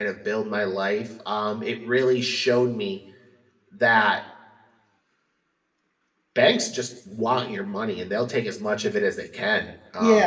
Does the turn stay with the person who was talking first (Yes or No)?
No